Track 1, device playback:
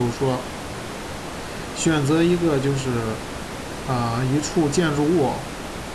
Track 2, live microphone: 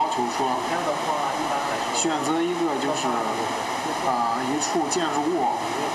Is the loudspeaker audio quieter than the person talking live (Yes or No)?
No